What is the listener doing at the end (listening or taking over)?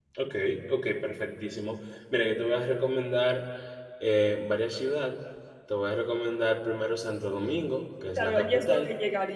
taking over